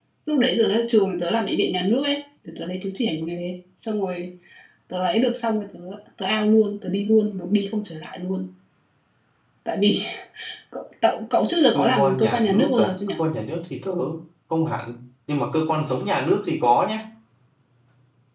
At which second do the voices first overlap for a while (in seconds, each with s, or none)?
11.7 s